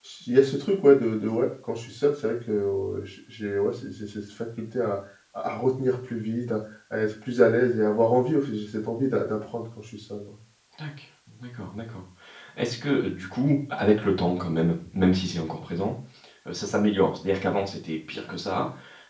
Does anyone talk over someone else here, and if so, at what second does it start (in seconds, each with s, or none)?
none